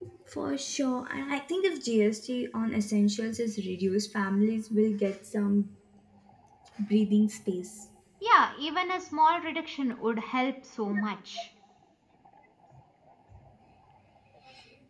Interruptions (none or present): none